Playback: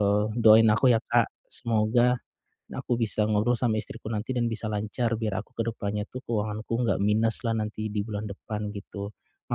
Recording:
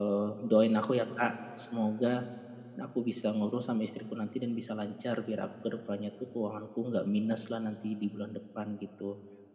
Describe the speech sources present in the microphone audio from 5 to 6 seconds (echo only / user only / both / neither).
echo only